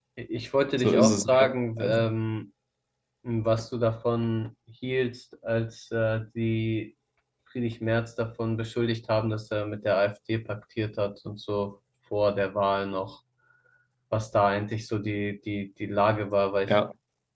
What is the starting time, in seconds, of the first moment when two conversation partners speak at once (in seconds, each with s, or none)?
0.8 s